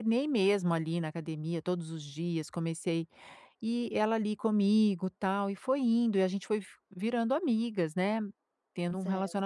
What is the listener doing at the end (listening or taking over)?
listening